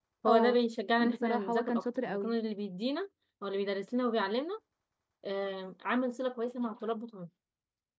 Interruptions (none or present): present